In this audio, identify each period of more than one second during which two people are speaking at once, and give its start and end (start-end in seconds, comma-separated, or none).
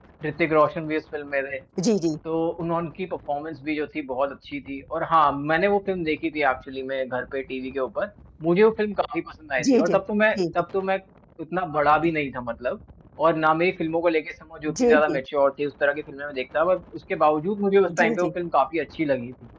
none